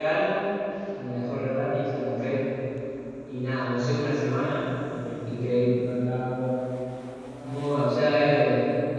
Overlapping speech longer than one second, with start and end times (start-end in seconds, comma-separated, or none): none